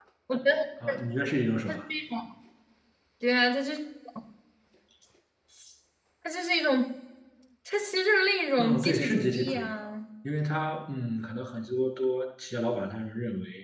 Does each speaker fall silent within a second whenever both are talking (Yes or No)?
No